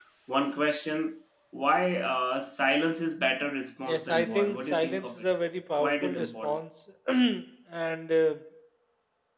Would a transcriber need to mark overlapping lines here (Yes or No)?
Yes